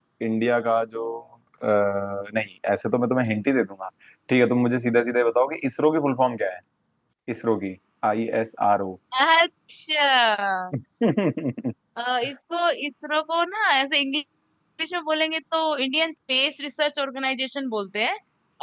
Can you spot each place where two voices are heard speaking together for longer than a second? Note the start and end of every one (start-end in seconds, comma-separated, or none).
none